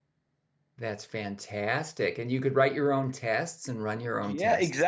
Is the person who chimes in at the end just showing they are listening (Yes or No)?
No